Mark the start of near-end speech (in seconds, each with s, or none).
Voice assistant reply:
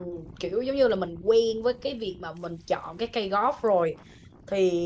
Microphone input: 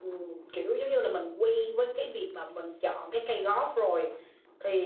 none